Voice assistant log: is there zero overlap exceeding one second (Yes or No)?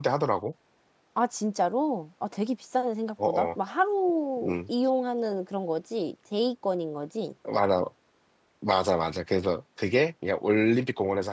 Yes